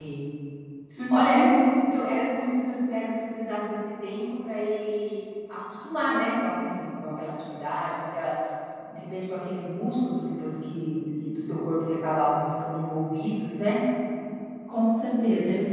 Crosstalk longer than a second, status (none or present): none